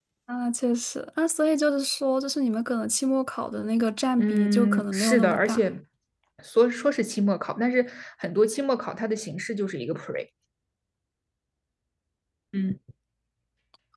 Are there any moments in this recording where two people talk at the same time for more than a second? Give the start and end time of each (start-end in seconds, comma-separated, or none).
4.2-5.6